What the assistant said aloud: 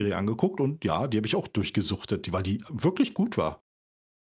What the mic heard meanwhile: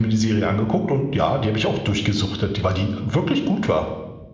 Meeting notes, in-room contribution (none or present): none